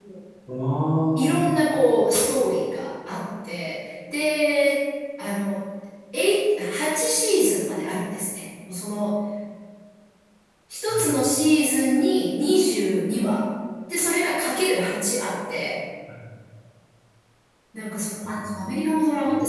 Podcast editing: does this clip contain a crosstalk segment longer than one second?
No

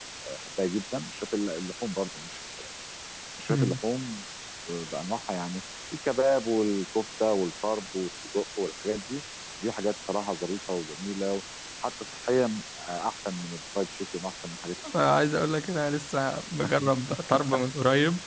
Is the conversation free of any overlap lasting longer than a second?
Yes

